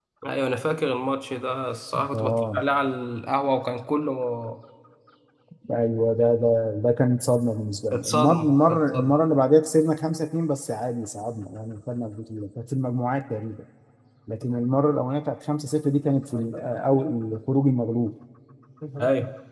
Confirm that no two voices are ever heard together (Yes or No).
No